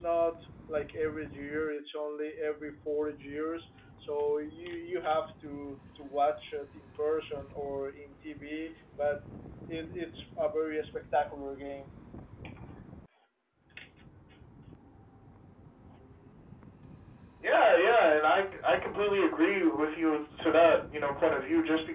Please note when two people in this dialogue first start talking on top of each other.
none

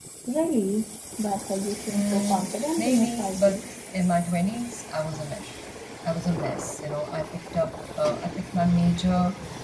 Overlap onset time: 1.9 s

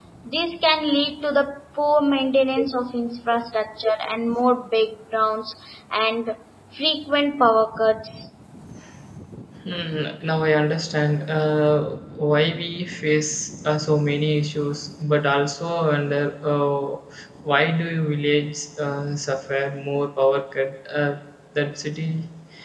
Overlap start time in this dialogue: none

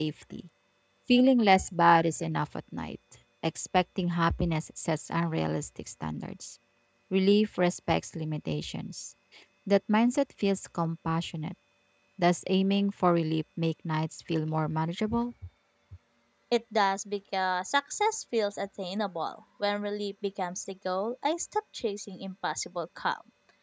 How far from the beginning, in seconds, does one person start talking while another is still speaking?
none

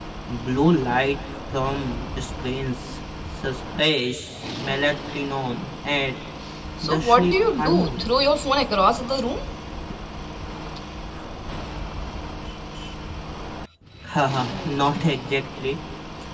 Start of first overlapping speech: 6.8 s

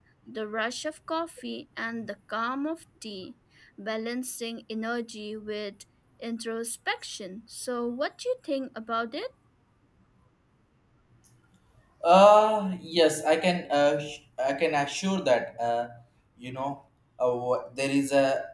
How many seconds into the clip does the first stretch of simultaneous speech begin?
none

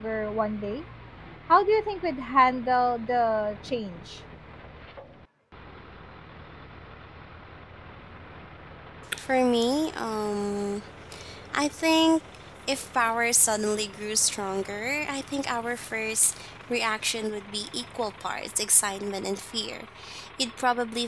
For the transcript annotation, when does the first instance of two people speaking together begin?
none

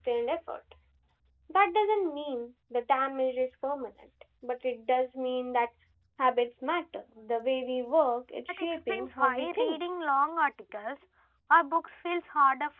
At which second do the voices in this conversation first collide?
8.5 s

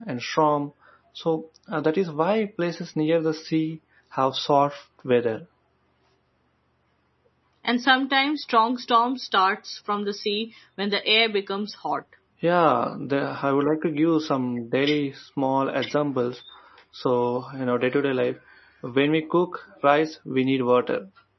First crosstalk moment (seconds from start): none

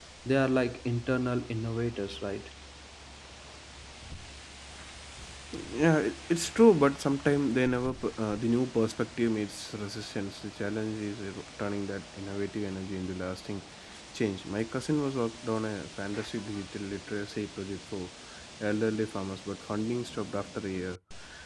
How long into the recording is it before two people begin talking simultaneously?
none

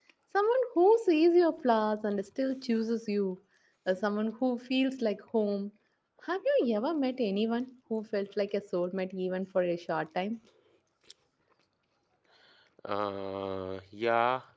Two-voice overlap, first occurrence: none

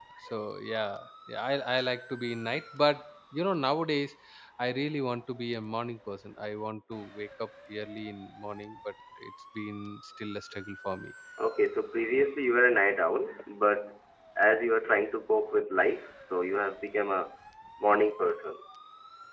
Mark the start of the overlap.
none

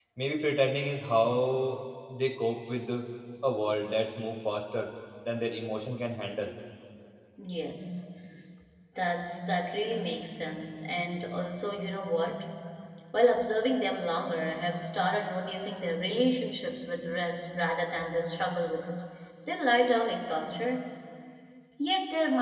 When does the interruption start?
none

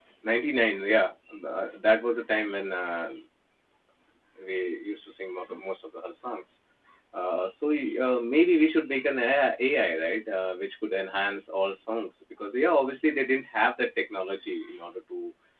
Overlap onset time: none

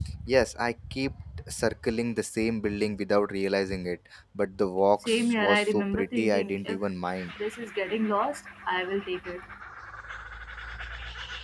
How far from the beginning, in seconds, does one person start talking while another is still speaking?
5.0 s

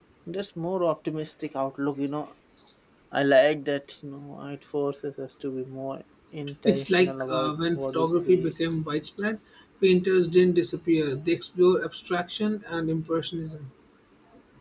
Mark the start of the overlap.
6.7 s

